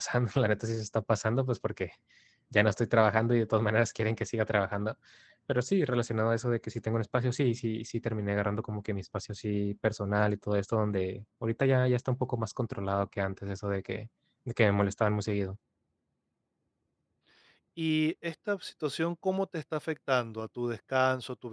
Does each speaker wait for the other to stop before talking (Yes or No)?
Yes